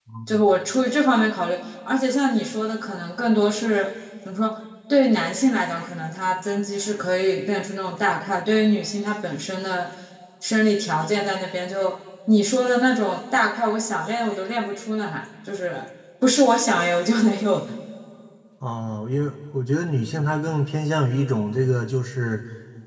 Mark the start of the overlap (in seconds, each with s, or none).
none